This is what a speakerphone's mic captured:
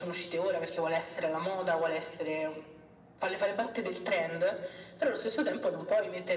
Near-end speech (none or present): none